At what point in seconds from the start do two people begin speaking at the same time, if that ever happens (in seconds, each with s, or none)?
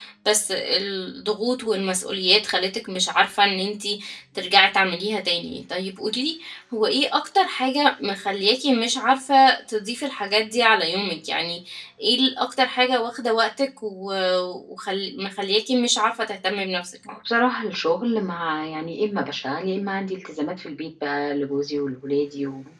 none